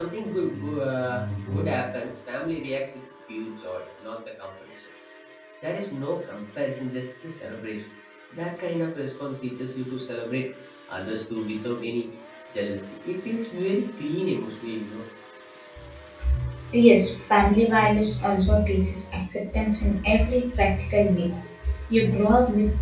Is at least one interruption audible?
No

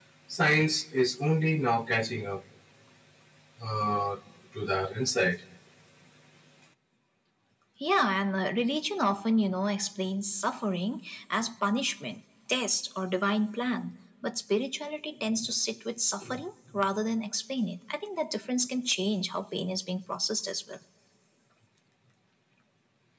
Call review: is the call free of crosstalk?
Yes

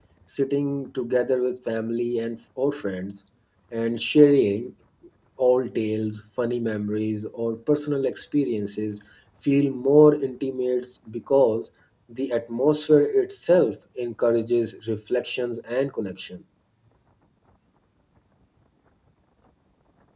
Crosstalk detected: No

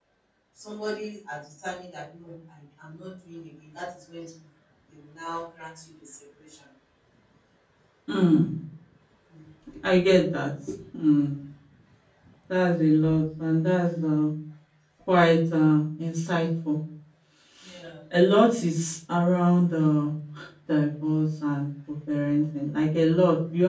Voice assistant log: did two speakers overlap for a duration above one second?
No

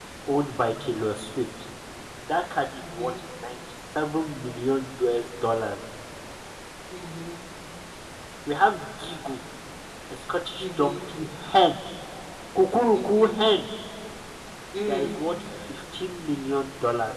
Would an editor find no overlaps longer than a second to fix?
Yes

